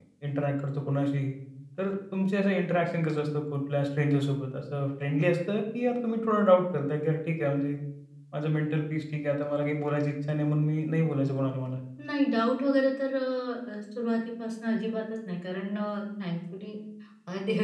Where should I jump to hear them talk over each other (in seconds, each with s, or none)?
none